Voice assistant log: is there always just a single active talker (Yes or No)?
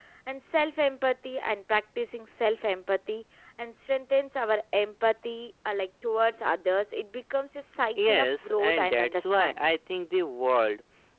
No